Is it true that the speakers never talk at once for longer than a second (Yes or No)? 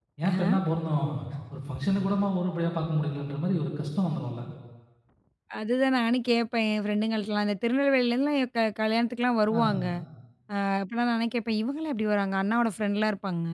Yes